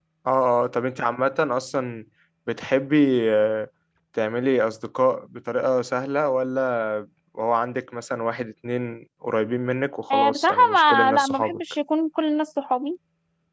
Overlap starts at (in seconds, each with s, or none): 10.1 s